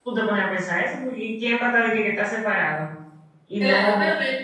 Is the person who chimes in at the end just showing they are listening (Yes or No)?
No